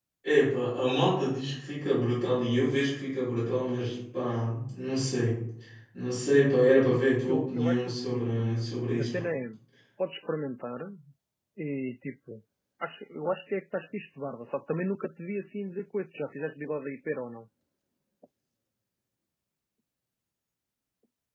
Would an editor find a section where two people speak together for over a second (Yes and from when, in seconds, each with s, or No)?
Yes, from 6.9 s